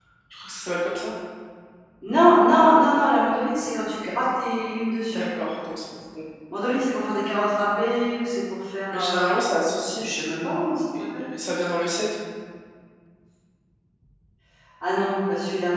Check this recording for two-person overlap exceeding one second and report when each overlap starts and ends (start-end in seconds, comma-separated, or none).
none